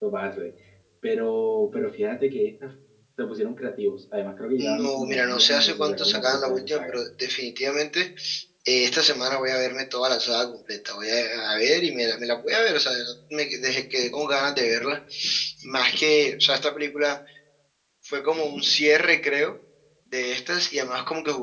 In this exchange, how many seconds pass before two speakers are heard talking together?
4.6 s

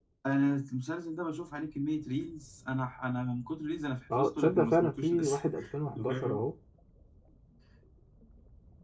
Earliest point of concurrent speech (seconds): 4.1 s

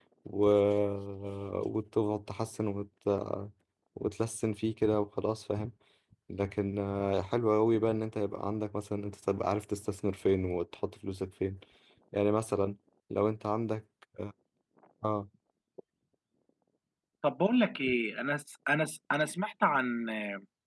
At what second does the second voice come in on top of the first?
none

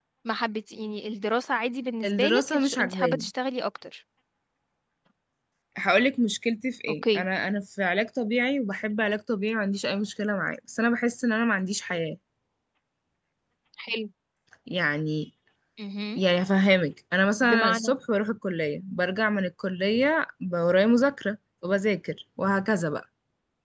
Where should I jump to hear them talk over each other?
2.0 s

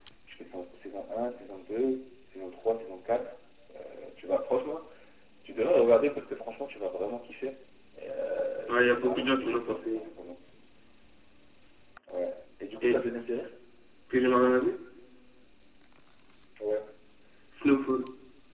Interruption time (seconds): 8.7 s

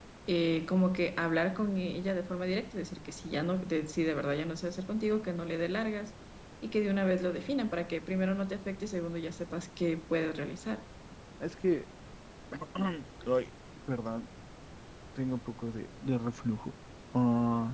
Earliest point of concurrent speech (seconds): none

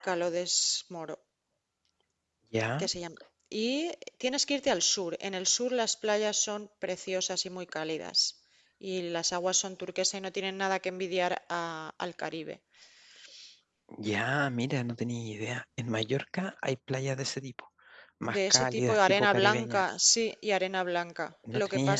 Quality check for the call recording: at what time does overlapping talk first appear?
18.3 s

